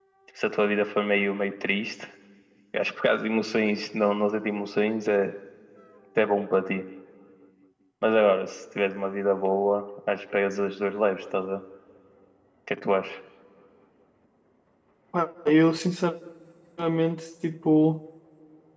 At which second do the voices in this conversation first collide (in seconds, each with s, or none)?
none